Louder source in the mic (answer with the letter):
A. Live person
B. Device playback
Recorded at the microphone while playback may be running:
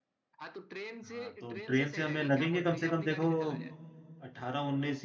A